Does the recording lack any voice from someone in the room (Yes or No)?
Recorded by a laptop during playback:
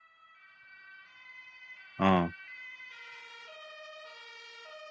No